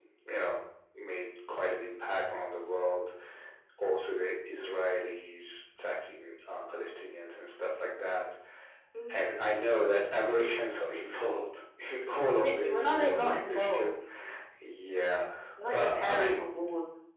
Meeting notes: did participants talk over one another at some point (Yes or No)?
Yes